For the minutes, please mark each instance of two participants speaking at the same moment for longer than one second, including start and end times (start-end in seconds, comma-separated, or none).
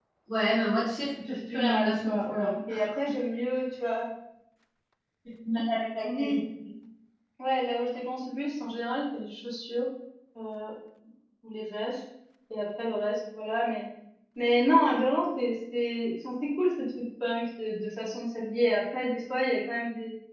1.3-2.5